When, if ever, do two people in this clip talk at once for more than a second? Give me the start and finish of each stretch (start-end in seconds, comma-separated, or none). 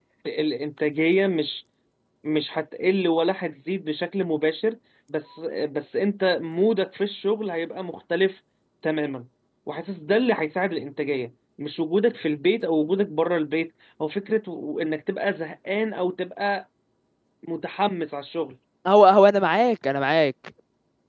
none